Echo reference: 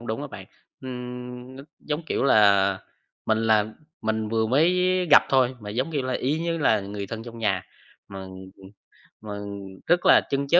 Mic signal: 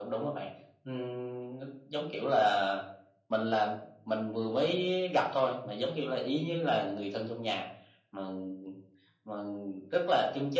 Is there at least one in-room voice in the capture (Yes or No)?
No